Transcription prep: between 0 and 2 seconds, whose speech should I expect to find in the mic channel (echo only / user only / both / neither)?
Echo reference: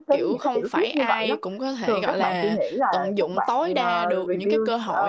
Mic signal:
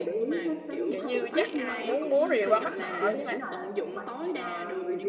both